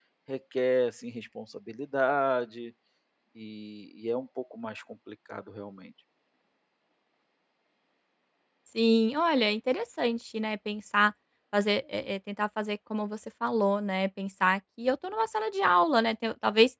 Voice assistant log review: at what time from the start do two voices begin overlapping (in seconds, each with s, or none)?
none